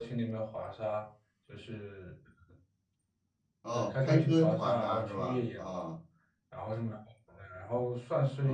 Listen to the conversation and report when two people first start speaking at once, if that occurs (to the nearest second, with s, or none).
4 s